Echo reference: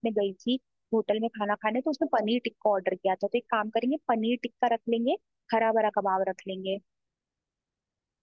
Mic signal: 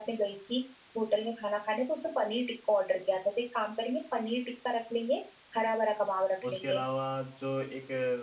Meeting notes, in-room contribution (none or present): present